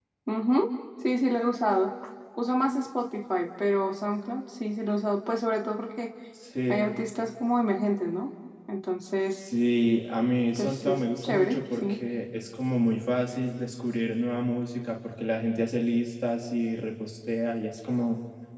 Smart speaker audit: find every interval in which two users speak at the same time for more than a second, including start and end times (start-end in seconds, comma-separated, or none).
10.6-12.0